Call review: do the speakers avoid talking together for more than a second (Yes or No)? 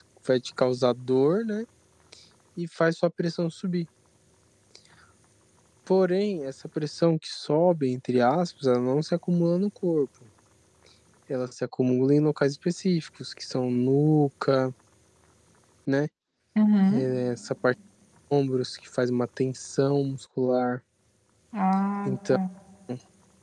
Yes